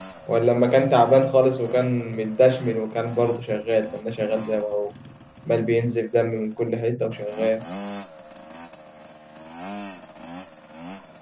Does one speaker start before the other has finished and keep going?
No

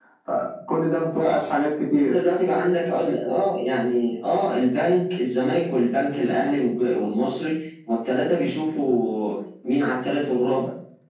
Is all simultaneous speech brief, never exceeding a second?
Yes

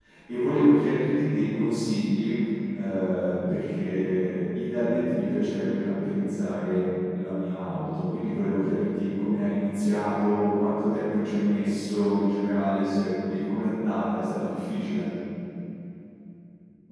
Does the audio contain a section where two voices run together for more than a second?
No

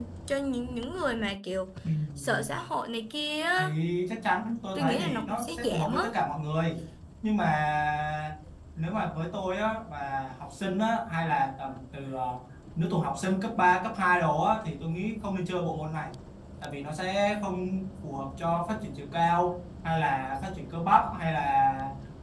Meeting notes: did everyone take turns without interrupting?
No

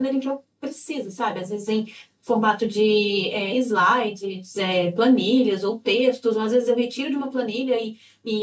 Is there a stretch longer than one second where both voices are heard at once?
No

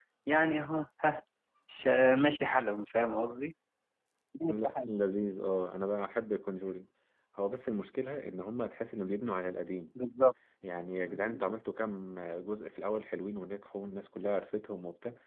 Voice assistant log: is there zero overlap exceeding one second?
Yes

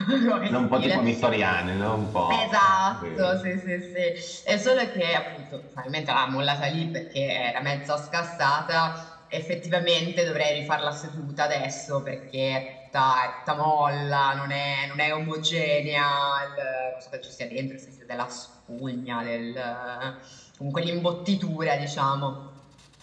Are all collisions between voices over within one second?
Yes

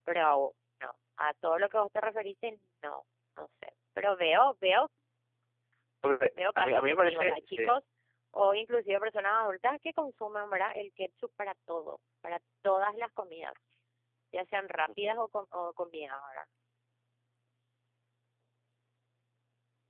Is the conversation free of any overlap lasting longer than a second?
No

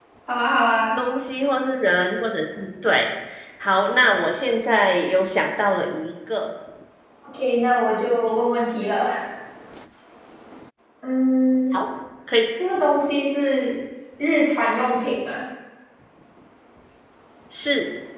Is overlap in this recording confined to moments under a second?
Yes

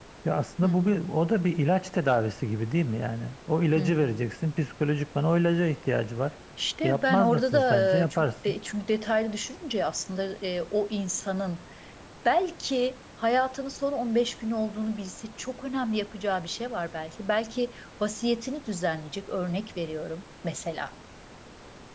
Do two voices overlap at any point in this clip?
Yes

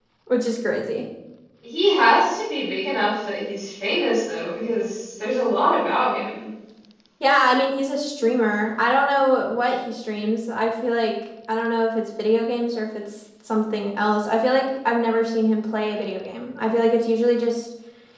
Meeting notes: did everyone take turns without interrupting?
Yes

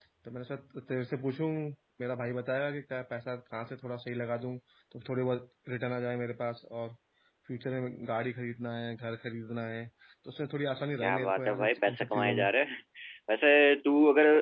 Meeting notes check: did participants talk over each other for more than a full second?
Yes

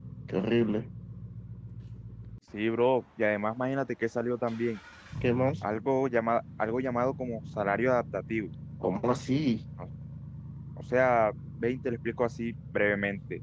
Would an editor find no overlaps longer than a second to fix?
Yes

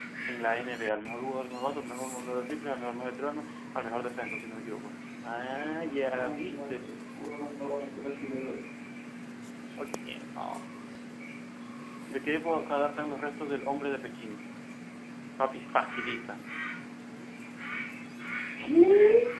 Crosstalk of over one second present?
Yes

